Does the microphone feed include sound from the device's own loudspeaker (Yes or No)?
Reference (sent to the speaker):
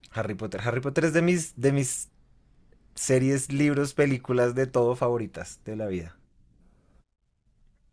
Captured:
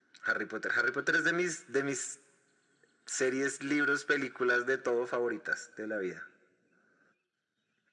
Yes